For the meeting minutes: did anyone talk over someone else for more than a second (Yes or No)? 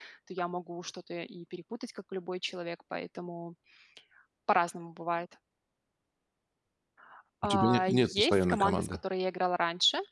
Yes